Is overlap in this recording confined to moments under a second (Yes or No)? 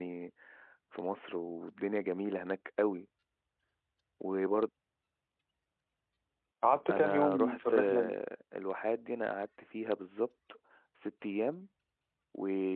No